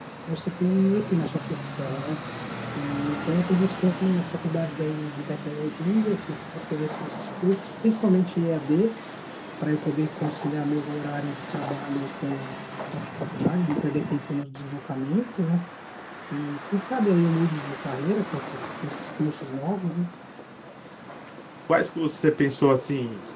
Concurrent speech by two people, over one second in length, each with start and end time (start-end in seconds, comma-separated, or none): none